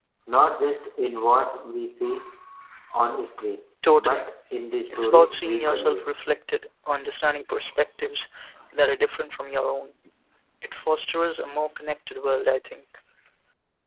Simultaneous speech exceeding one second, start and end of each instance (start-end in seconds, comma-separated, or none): 4.9-6.1